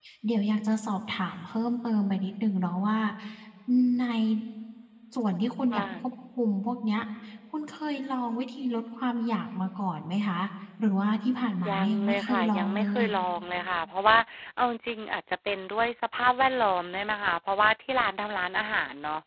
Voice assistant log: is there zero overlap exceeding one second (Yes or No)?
No